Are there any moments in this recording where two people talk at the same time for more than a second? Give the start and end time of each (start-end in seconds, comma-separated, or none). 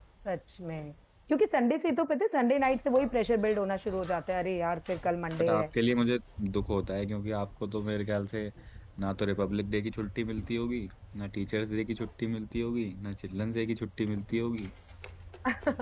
none